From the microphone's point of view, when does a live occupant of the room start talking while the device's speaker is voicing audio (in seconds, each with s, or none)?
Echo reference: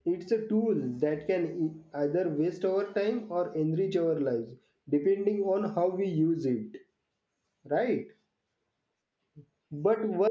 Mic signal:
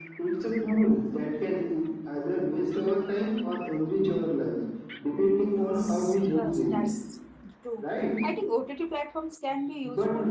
5.3 s